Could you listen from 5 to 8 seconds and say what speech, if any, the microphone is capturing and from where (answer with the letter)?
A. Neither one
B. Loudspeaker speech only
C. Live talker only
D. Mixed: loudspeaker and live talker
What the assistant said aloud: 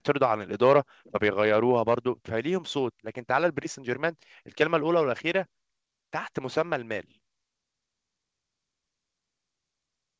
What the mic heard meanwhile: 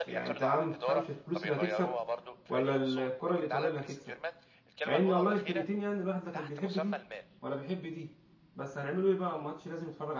D